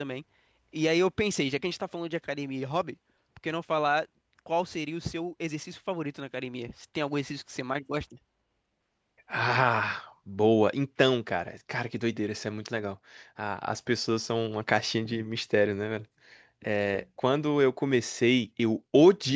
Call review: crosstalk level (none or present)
none